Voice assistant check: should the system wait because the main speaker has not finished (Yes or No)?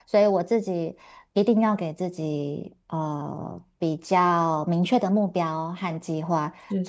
Yes